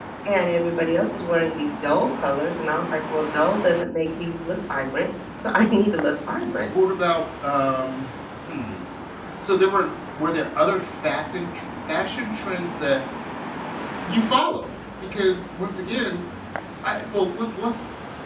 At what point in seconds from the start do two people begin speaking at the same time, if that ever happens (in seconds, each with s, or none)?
none